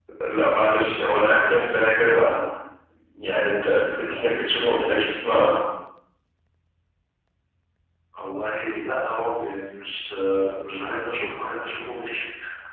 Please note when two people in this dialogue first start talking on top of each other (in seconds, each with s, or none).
none